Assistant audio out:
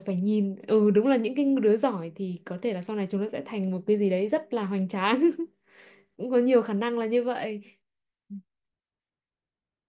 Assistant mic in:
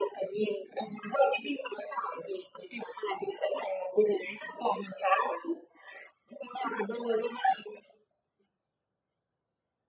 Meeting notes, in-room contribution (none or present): none